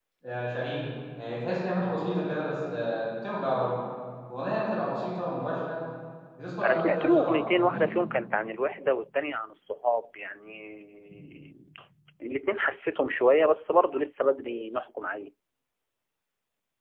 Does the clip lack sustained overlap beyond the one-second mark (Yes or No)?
No